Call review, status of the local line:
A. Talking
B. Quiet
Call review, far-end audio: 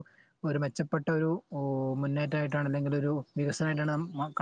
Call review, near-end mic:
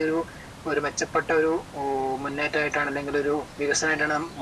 B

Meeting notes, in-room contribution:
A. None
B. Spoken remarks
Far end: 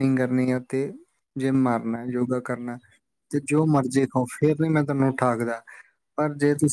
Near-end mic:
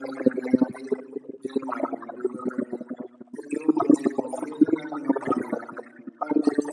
A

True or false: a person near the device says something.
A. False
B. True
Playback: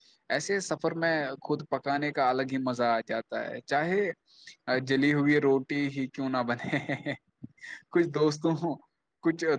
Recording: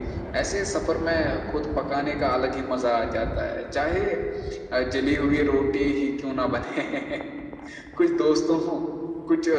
A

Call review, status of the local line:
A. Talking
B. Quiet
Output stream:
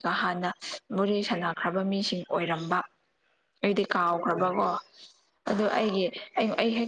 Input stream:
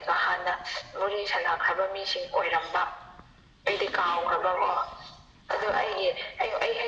B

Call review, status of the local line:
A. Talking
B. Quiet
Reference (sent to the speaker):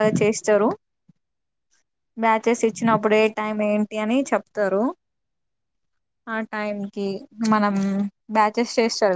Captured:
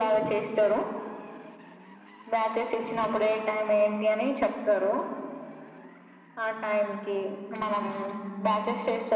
B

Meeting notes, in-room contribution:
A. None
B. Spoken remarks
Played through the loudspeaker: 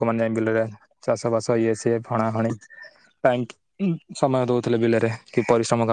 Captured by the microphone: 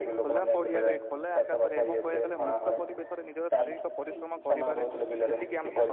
B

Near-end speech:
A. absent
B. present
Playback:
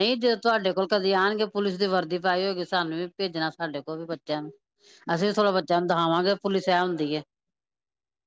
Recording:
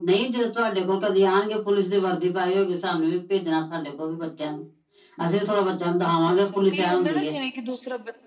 B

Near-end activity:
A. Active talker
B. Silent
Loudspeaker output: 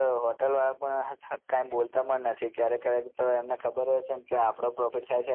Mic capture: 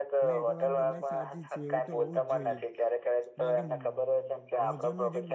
A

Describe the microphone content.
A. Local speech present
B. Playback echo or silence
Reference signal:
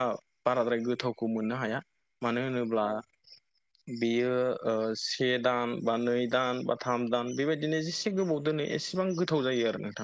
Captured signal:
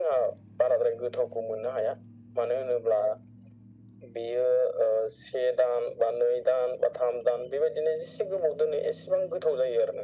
B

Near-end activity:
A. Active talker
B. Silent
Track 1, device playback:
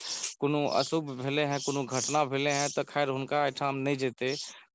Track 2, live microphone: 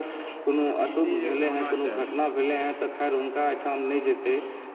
A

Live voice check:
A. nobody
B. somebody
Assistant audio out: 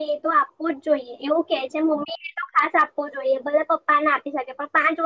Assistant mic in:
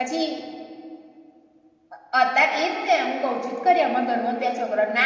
B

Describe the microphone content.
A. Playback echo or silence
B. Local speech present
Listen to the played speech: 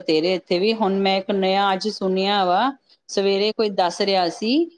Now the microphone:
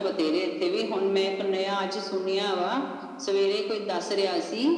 A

